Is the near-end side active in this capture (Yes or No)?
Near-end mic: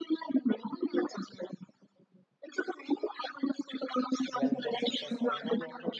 Yes